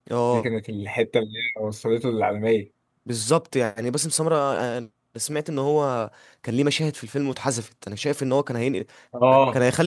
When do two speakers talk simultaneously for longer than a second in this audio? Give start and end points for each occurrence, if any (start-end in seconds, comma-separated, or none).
none